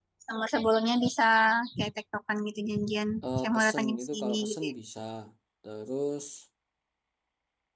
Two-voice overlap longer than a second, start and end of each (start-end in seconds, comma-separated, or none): 3.2-4.7